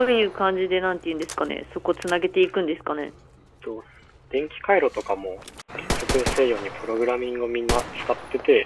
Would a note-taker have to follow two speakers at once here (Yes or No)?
No